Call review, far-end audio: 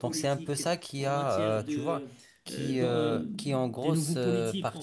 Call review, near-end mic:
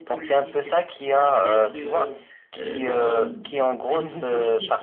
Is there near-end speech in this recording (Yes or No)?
No